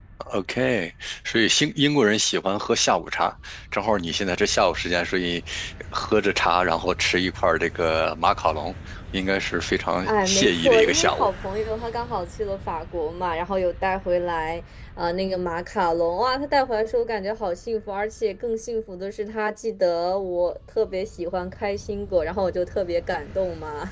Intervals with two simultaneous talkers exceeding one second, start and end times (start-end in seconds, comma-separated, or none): 10.1-11.3